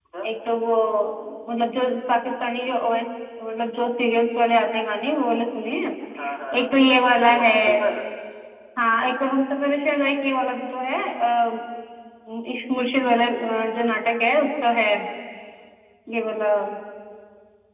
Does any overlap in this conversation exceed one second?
No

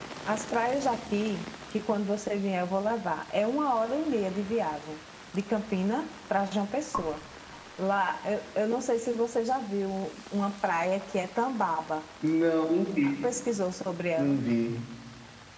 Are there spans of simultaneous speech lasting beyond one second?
No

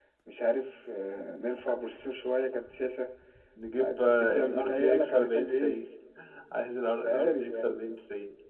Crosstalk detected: Yes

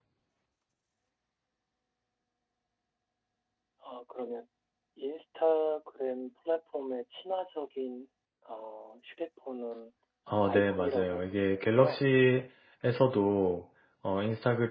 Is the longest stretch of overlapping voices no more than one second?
No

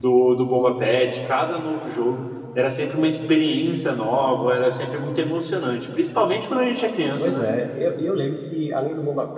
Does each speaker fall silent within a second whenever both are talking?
Yes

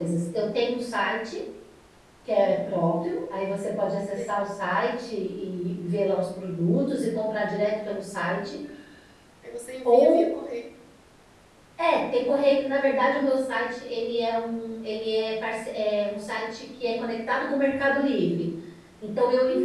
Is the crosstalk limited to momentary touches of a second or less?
Yes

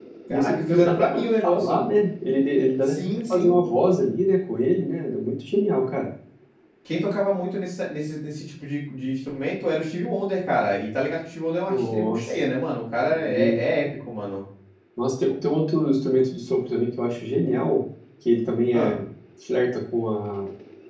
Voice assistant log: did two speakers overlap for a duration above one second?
Yes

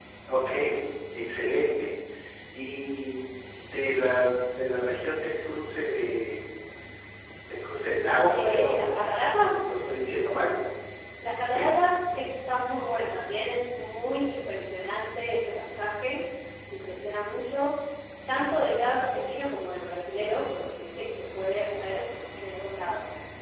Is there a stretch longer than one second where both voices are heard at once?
No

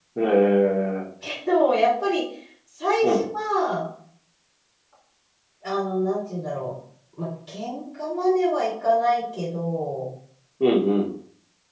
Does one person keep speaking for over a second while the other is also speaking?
No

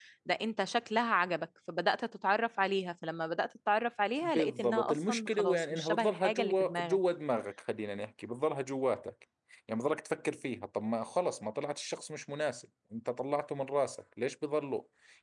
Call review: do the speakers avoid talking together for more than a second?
No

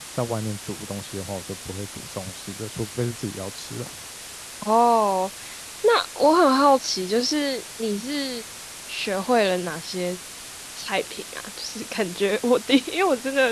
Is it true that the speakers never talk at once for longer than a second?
Yes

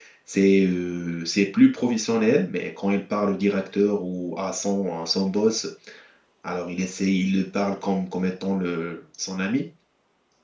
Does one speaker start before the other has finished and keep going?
No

